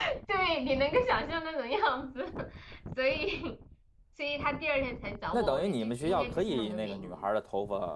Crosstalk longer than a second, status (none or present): present